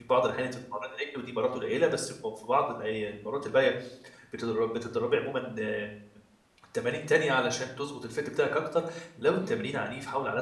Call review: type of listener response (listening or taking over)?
listening